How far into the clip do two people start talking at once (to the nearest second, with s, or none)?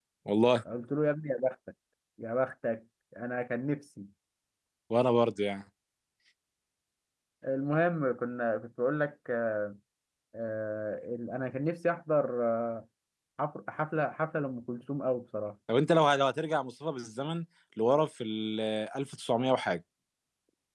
none